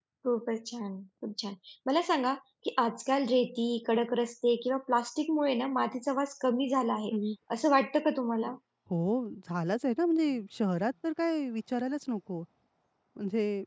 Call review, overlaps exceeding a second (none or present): none